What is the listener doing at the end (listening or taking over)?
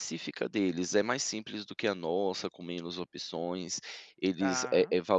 listening